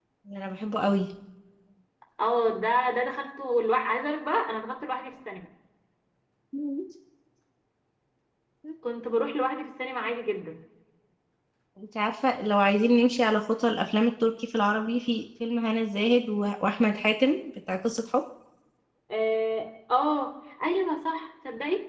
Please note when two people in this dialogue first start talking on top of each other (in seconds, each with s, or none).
none